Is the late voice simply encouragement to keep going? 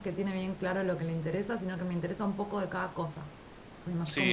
No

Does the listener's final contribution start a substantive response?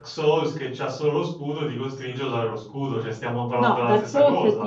Yes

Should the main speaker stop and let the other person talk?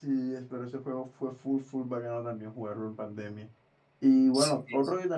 No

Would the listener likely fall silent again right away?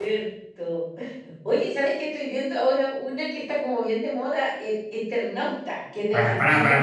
No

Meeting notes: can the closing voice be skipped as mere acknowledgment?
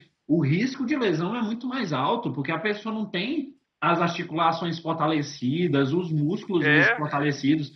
Yes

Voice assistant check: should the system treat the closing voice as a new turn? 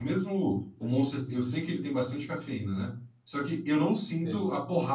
No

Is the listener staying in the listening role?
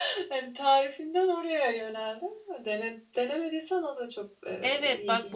No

